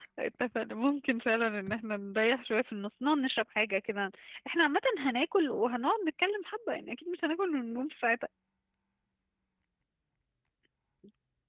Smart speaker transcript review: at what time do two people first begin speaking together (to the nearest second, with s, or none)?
none